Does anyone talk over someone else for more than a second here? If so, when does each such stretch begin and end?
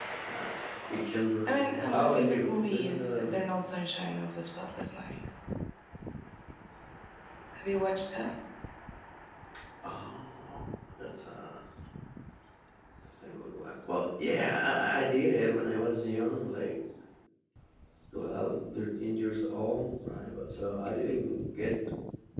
1.5-3.6

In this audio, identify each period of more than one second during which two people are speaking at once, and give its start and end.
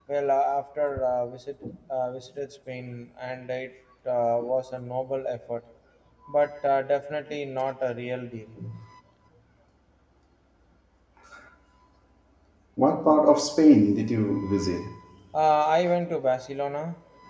none

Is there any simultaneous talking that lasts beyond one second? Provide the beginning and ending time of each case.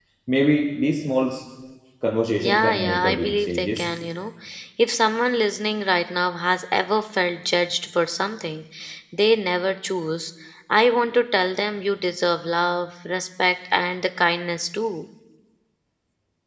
2.4-3.8

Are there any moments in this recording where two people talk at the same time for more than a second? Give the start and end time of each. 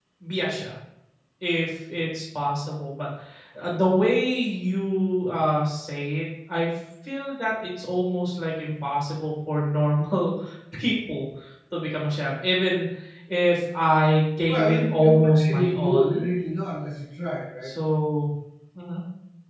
14.5-16.3

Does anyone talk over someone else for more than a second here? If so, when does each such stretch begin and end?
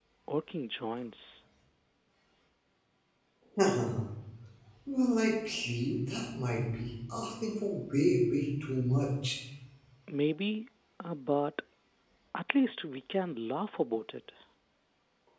none

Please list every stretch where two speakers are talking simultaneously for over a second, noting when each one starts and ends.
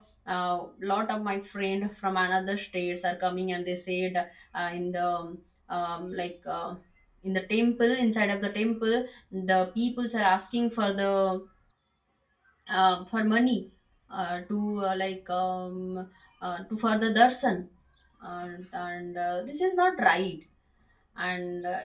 none

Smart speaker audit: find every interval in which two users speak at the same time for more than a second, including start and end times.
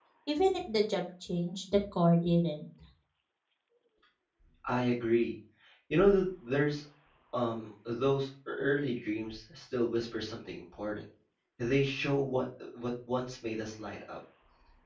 none

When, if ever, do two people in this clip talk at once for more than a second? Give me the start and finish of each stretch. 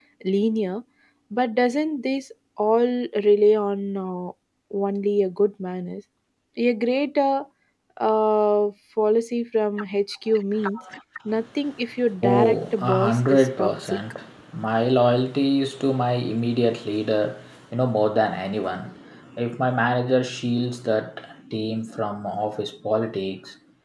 12.2-14.0

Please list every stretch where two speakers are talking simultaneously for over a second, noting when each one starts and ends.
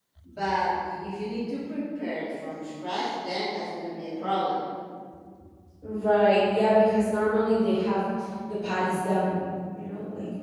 none

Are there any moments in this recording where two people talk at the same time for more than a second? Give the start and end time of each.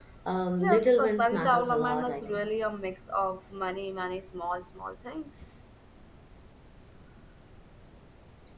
0.6-2.5

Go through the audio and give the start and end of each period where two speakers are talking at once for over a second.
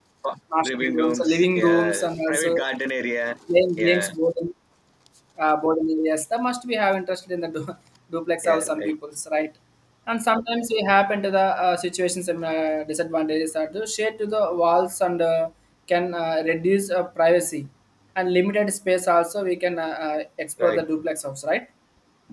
0.6-2.6

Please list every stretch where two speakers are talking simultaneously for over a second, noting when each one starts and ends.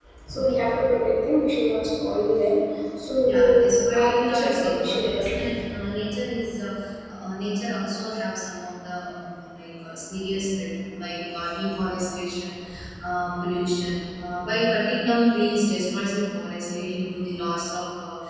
3.2-5.5

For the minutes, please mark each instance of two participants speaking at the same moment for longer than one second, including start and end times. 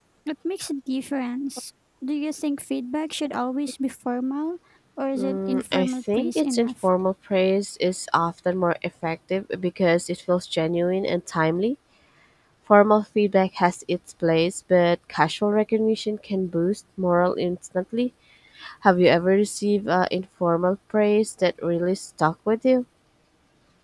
5.2-6.9

